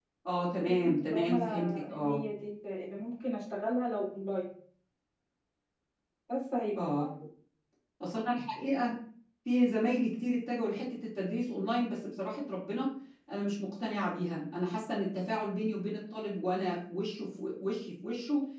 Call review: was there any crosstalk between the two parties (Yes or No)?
Yes